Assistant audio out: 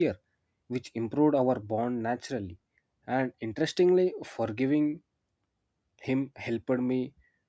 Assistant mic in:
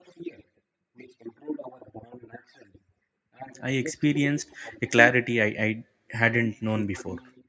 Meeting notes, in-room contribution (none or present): present